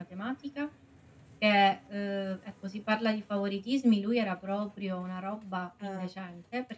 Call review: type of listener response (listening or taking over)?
listening